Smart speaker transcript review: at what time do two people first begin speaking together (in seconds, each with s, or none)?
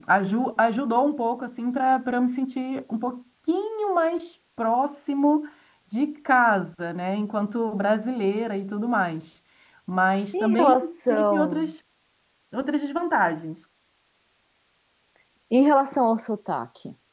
10.3 s